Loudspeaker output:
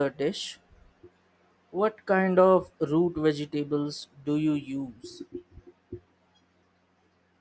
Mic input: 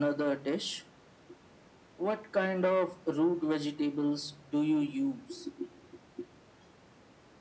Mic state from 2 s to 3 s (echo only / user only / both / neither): echo only